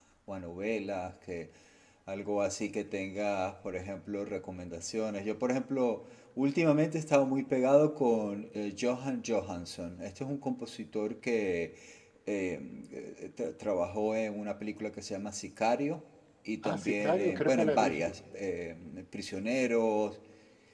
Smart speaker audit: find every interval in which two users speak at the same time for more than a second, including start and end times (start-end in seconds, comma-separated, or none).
16.6-18.1